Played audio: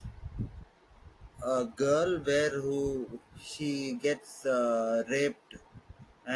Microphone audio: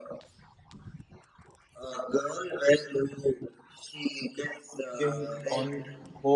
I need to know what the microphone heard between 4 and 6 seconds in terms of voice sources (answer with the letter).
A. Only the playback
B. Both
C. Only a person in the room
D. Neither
B